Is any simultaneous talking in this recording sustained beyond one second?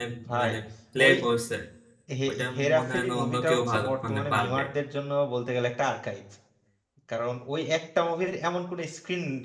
Yes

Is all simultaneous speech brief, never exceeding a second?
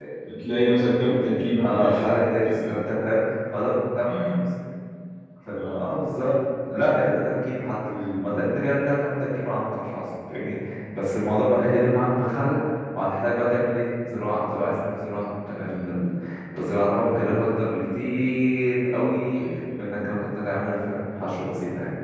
Yes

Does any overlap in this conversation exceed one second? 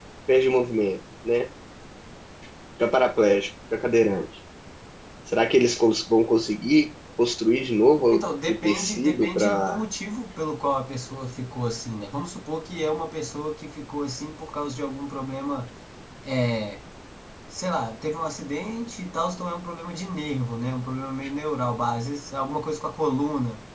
Yes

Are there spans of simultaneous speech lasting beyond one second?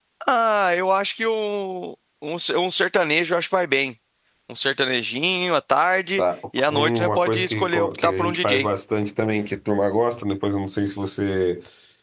Yes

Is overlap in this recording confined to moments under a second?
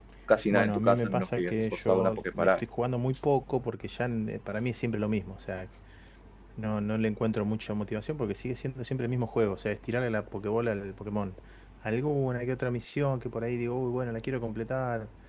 No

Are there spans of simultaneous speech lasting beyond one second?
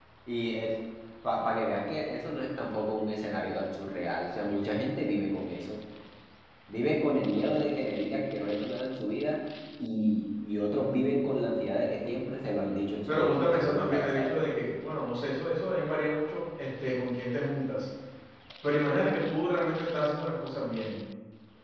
Yes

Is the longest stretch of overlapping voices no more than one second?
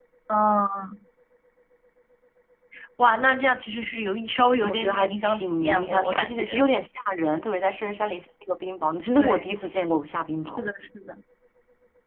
No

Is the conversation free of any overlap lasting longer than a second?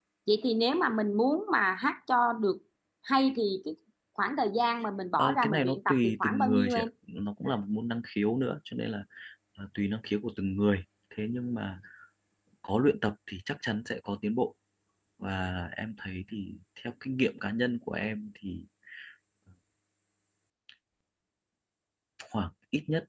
No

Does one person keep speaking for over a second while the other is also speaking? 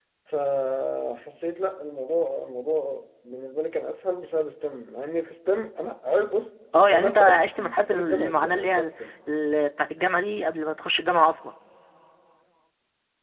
Yes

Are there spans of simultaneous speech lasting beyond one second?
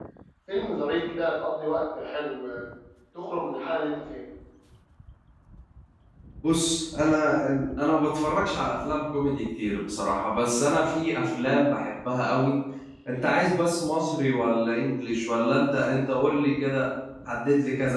No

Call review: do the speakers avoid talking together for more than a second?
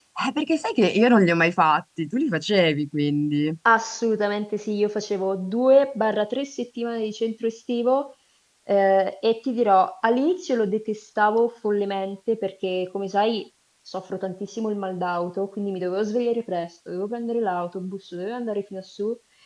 Yes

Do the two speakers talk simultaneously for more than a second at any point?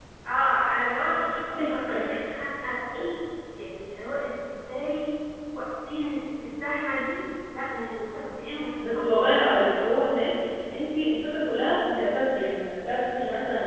No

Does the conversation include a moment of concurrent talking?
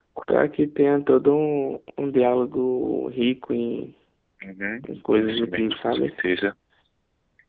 Yes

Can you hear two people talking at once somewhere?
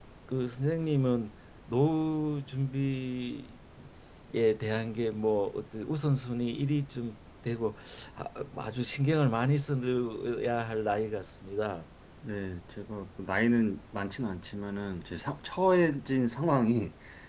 No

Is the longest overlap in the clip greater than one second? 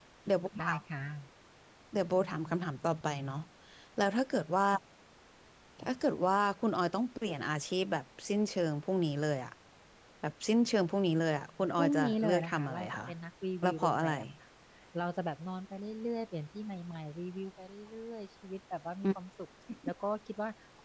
Yes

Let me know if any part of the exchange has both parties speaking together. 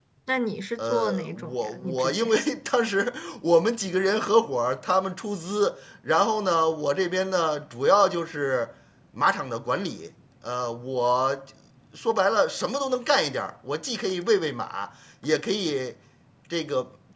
Yes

